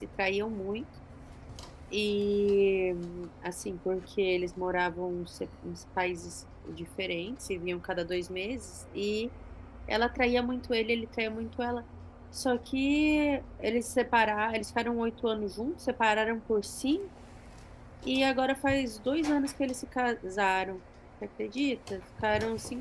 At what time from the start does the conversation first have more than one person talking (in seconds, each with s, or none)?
none